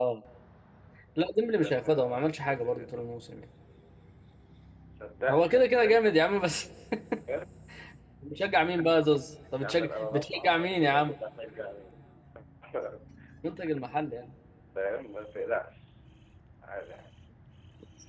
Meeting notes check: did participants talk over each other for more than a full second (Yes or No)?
Yes